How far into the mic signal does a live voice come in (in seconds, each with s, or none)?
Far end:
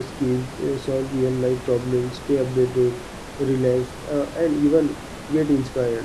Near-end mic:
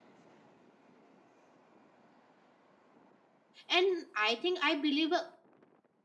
3.7 s